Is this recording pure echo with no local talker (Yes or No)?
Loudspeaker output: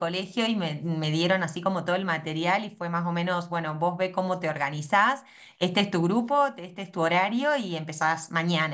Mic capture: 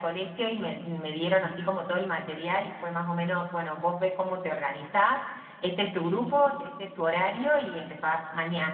Yes